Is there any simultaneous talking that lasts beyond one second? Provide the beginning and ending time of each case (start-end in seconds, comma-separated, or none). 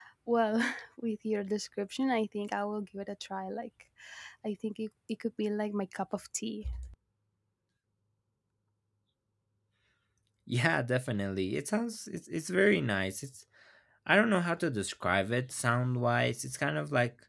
none